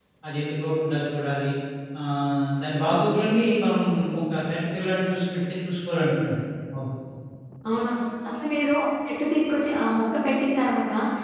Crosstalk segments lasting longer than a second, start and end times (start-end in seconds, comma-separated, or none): none